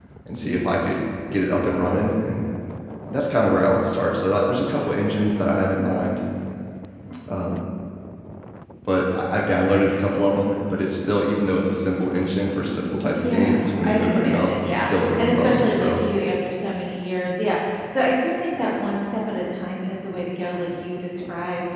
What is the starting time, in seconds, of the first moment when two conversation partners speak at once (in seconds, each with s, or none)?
13.2 s